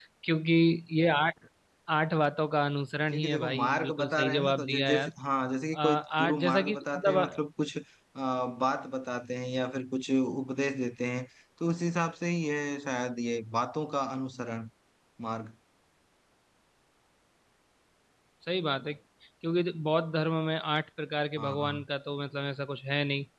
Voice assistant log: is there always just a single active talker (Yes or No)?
No